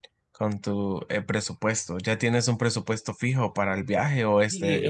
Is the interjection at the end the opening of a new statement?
Yes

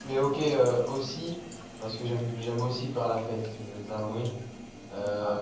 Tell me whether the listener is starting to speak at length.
No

